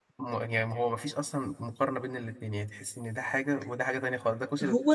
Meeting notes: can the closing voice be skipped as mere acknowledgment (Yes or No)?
No